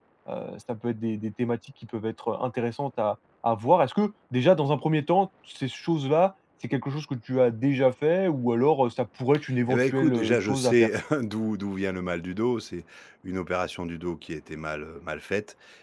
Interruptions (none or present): present